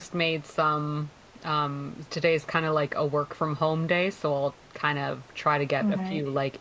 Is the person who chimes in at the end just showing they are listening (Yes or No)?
Yes